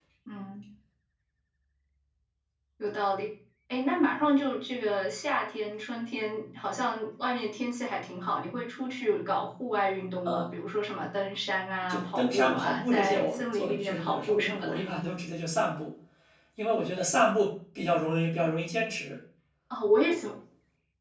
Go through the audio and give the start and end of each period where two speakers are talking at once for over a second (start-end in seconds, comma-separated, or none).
11.9-14.8